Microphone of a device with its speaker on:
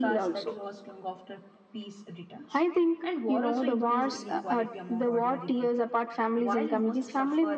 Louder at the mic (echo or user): echo